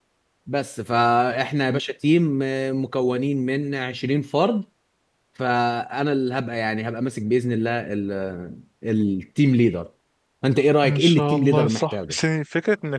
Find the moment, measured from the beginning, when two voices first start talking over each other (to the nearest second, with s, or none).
11 s